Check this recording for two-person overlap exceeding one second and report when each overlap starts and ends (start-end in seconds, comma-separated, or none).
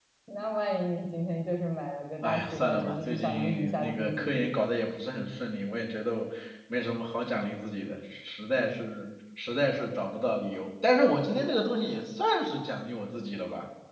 2.2-4.5